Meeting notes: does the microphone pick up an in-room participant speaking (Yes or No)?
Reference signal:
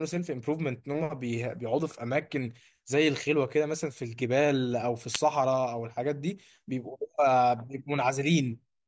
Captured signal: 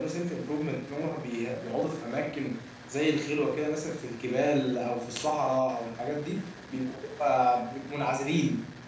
No